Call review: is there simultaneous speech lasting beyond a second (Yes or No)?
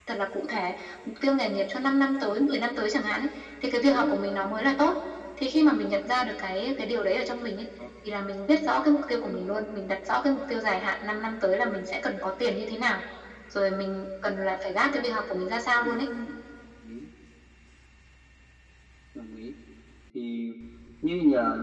No